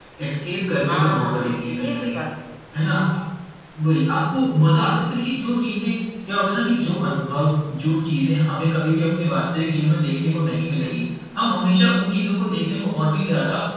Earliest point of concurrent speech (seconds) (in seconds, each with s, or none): 0.9 s